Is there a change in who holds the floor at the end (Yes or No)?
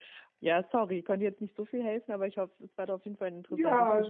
Yes